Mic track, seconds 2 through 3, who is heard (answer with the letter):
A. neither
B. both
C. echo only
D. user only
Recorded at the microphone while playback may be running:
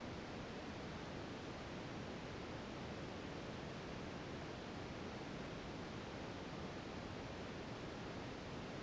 A